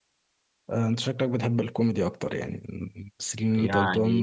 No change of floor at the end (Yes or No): No